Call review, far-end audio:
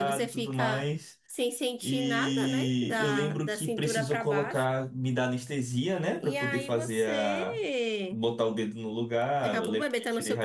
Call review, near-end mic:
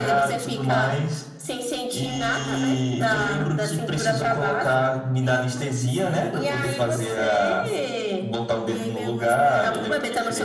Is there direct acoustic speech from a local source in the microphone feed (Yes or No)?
Yes